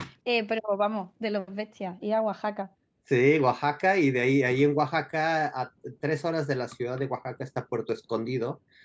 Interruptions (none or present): none